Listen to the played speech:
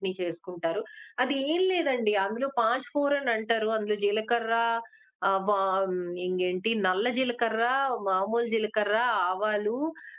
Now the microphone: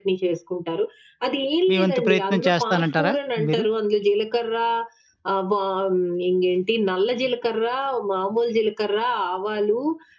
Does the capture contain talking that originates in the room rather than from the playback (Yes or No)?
Yes